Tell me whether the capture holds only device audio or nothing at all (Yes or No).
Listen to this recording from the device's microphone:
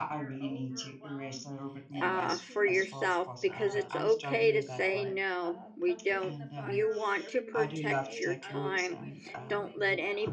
No